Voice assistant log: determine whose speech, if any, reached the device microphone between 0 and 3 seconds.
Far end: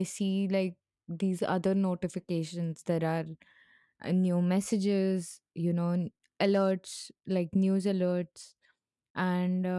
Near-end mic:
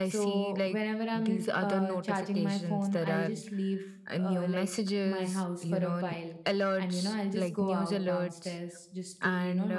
both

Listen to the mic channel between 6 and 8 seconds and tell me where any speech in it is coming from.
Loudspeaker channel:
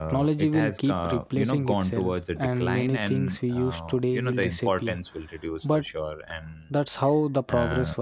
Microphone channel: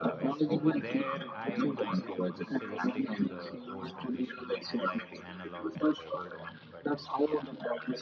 both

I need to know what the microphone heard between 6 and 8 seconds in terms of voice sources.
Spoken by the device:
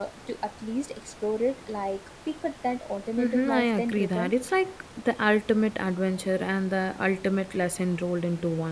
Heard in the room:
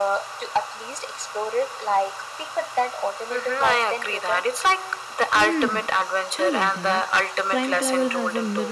both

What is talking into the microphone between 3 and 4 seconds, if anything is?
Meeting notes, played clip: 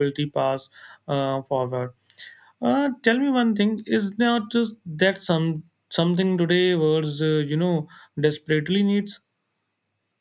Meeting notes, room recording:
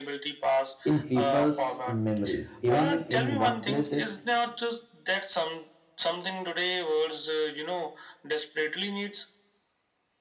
both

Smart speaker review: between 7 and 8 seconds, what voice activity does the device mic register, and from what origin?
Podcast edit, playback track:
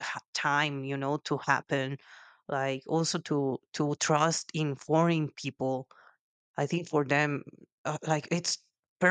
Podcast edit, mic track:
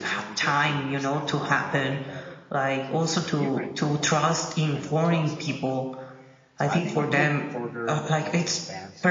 both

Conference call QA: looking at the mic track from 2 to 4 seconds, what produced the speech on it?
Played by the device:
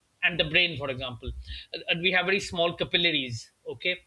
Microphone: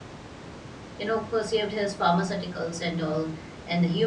user only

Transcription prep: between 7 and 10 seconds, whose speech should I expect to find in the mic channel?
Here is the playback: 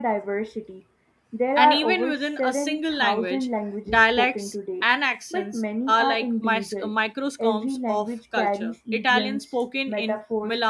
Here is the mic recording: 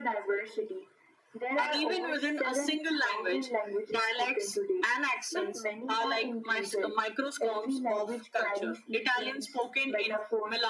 echo only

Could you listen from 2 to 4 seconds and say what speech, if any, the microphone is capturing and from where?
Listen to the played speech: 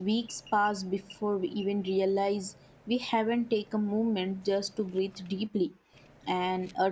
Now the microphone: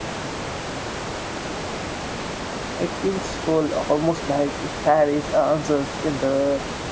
user only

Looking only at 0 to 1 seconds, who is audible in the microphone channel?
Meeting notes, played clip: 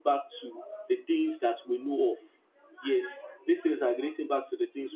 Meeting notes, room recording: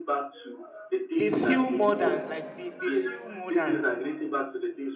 echo only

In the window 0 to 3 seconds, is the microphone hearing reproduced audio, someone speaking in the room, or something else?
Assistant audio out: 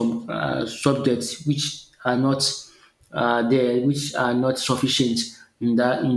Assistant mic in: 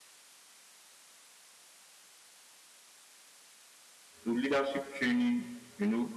neither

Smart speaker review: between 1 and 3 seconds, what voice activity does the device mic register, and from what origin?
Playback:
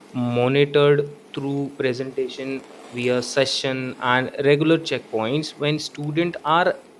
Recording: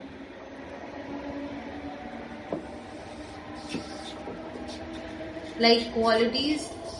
neither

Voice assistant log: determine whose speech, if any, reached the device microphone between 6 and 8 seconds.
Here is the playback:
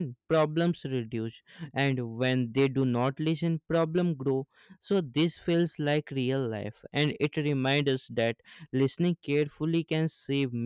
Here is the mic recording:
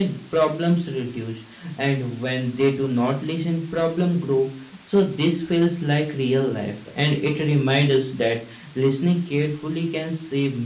echo only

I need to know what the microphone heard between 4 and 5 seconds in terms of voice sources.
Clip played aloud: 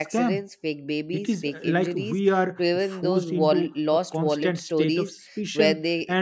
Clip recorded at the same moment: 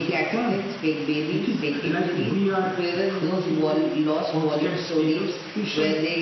echo only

